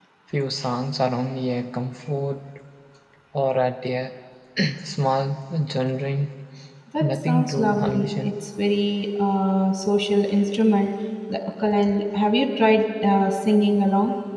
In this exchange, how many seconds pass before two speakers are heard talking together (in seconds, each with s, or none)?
7.0 s